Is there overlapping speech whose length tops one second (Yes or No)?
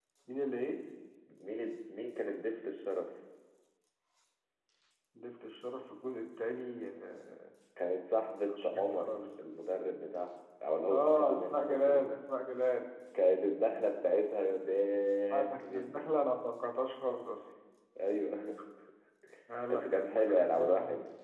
Yes